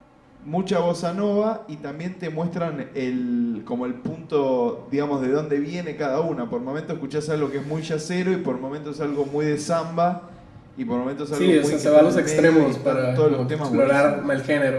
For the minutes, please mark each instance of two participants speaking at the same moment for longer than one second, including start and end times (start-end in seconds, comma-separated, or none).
11.3-14.2